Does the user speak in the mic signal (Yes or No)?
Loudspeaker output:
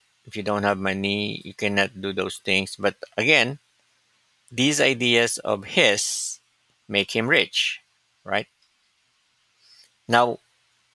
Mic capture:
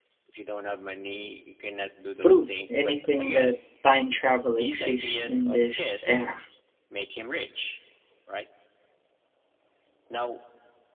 Yes